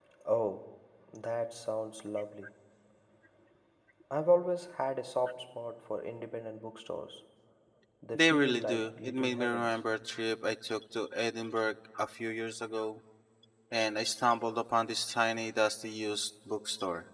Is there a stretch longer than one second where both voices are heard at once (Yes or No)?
Yes